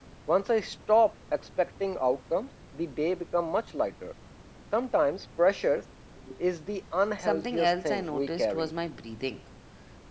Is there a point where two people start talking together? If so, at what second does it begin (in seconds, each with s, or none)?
7.2 s